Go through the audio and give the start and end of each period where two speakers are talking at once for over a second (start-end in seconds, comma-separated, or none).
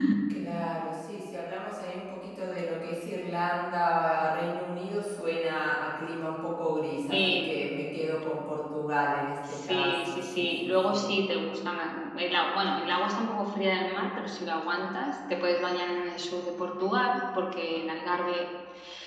9.5-11.1